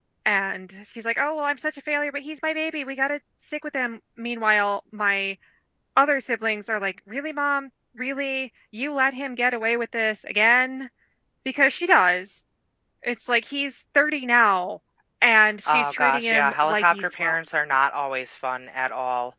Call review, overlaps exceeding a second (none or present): present